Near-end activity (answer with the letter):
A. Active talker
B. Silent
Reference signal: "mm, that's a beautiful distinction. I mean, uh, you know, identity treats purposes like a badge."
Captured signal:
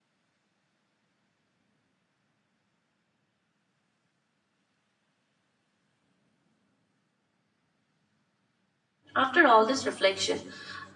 A